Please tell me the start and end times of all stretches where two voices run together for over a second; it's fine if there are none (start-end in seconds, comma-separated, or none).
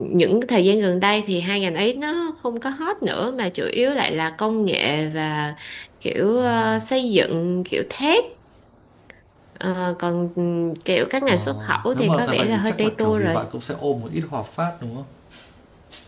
11.3-13.4